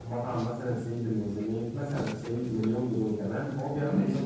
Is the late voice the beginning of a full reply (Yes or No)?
No